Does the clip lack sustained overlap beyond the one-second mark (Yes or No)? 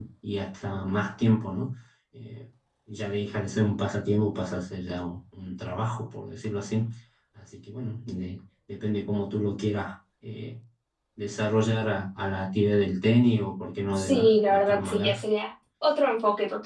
No